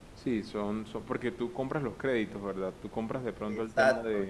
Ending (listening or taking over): taking over